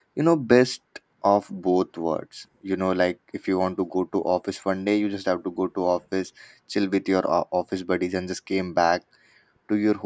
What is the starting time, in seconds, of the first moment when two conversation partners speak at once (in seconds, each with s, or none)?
none